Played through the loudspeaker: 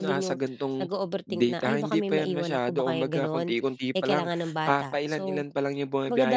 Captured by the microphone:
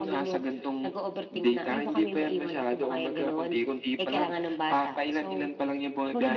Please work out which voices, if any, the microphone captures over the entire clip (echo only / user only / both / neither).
echo only